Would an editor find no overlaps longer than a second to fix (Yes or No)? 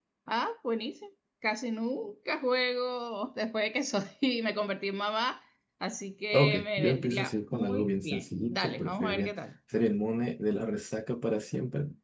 No